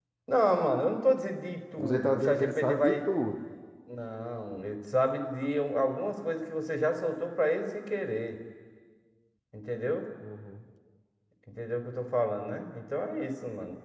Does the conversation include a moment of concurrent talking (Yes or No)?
Yes